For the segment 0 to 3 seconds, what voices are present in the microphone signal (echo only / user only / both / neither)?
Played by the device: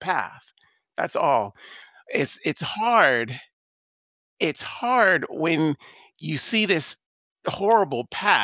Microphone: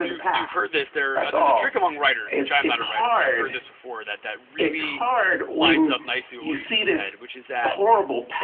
both